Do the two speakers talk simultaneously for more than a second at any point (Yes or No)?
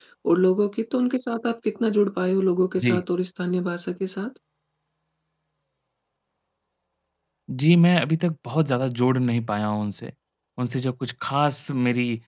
No